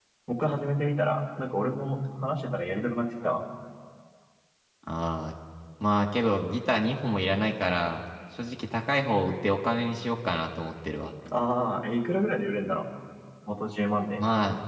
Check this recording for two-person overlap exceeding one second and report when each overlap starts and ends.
none

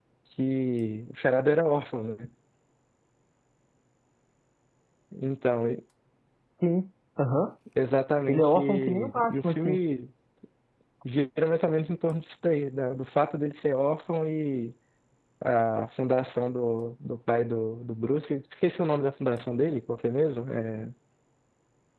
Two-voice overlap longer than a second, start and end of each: 8.3-9.8

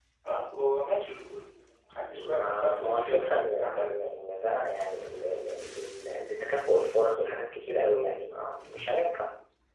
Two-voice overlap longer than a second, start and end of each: 2.2-4.1

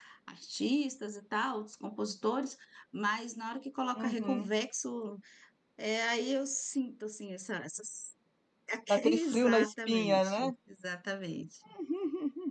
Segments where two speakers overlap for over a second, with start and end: 9.0-10.5

